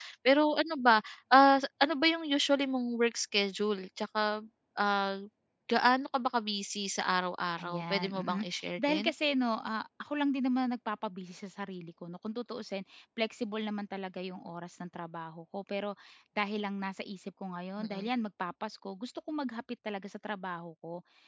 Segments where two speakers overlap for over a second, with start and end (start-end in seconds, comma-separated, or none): 7.6-9.1